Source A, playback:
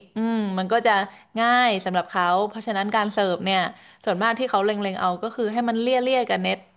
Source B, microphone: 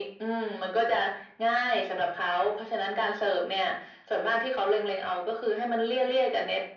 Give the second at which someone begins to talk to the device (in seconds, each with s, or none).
none